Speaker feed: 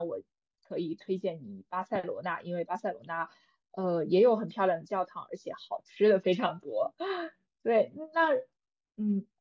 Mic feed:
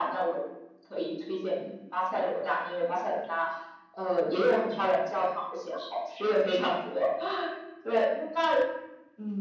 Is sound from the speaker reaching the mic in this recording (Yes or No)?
Yes